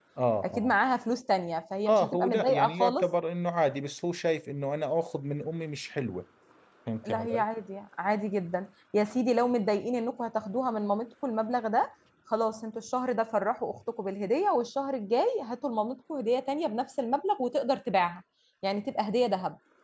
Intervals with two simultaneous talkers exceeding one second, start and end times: 1.9-3.1

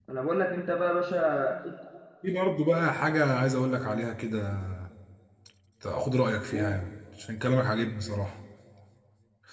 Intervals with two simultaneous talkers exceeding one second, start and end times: none

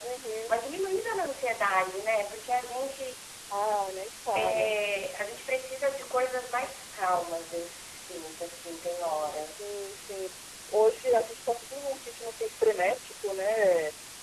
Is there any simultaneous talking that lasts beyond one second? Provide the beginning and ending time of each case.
none

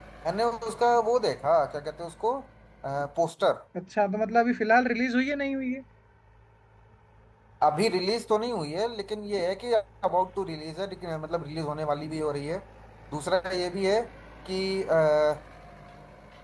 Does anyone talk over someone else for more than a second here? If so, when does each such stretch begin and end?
none

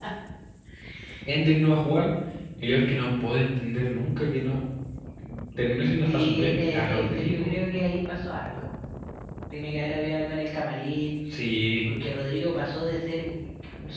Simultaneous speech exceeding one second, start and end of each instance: 6.1-7.5

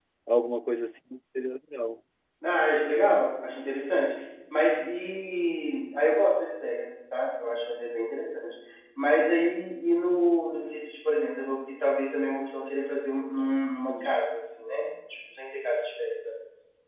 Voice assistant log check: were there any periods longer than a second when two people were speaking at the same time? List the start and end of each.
none

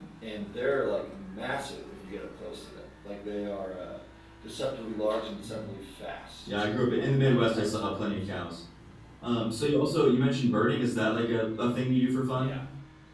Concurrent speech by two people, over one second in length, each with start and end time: 6.5-8.1

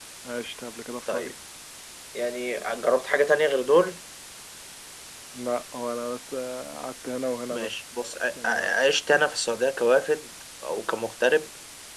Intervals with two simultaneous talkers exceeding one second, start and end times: none

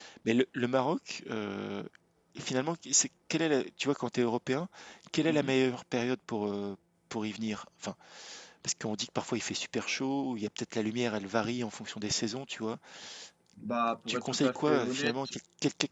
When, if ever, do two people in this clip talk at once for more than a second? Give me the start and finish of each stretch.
14.1-15.3

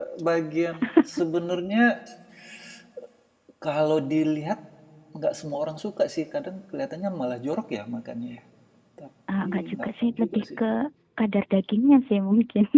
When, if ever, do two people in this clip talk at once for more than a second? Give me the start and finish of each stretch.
9.4-10.6

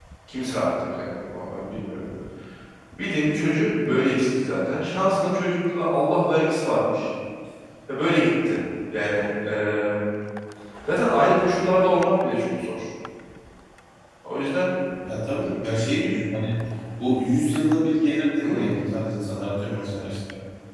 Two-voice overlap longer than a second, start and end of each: none

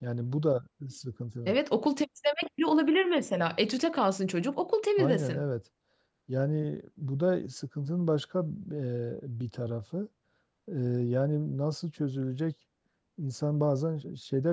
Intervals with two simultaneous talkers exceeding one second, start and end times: none

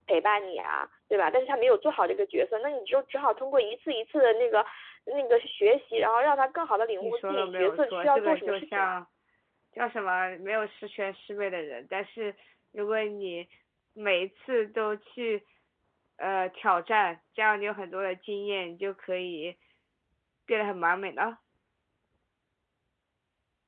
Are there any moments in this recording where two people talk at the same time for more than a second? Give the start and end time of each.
7.0-8.9

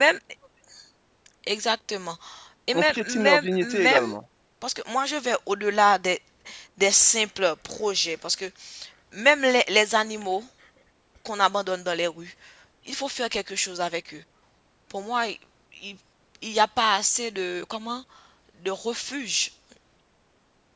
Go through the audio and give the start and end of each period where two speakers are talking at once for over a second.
2.7-4.0

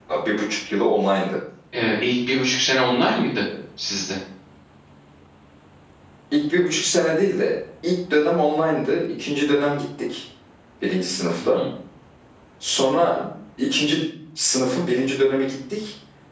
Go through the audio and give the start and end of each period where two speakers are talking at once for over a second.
none

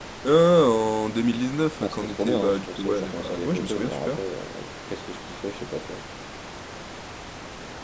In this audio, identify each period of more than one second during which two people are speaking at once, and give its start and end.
1.8-4.2

